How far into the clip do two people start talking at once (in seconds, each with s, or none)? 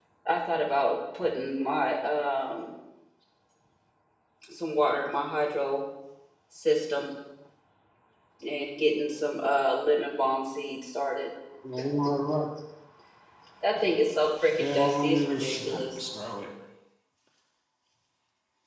14.6 s